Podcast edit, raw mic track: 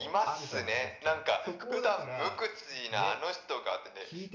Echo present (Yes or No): Yes